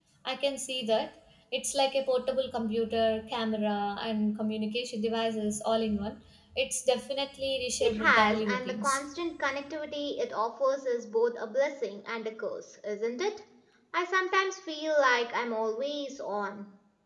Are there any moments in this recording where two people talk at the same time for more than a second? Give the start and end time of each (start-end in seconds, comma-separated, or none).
7.8-9.0